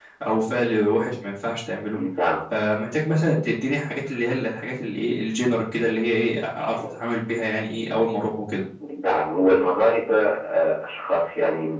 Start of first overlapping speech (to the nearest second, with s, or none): none